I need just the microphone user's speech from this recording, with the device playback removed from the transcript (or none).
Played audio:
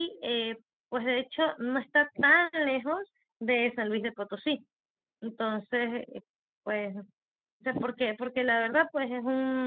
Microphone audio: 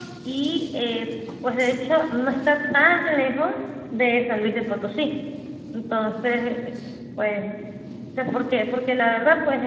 none